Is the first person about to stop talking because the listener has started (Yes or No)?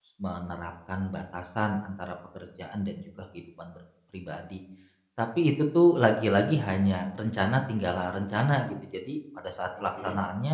No